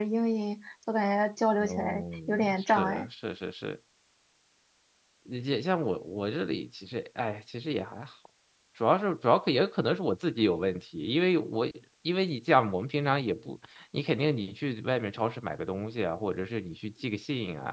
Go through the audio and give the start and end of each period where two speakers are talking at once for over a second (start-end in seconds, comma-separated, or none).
1.6-3.1